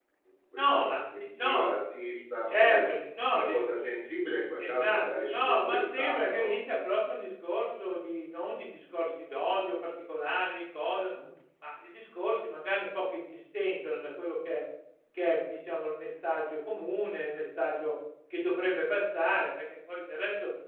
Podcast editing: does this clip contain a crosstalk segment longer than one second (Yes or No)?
Yes